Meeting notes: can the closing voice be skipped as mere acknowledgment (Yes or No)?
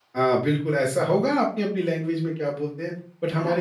Yes